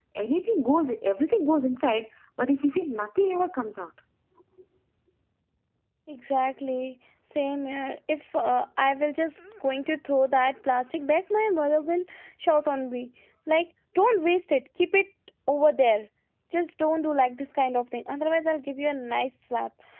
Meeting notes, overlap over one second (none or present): none